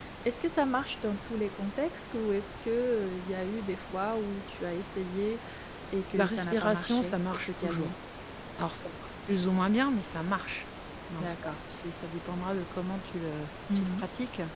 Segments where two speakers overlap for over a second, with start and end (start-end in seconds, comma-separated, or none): 6.2-8.0